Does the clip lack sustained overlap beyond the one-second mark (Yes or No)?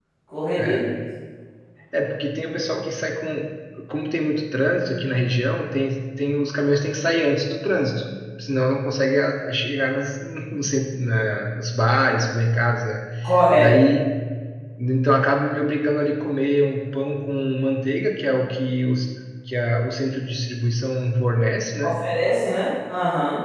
Yes